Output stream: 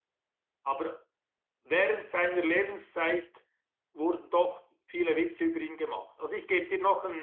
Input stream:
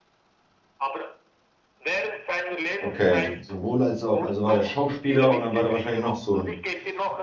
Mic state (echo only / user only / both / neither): both